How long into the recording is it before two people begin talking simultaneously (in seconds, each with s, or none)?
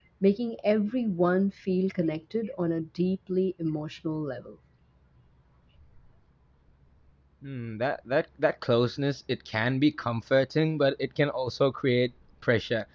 none